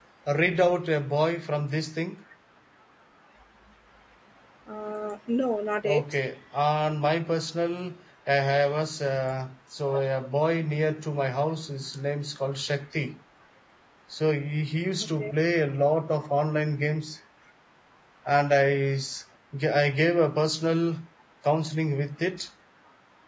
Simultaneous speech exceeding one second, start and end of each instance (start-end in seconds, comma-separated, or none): none